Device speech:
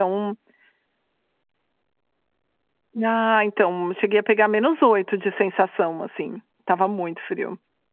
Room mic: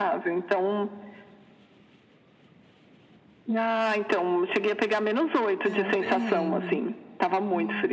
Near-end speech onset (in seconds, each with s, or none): 5.6 s